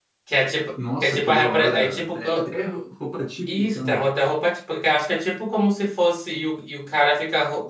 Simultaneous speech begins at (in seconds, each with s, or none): 1.0 s